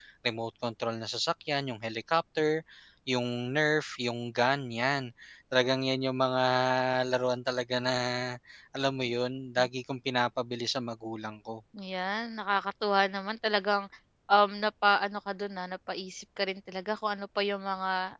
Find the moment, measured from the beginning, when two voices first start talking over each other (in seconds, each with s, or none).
none